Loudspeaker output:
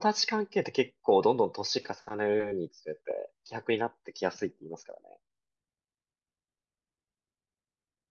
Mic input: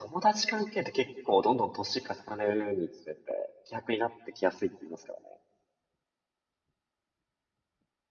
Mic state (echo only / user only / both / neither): echo only